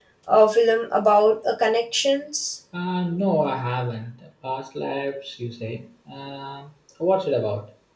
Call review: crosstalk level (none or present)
none